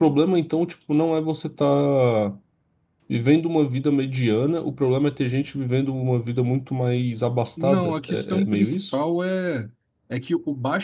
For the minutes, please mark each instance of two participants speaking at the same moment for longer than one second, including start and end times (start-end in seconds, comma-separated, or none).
7.6-8.9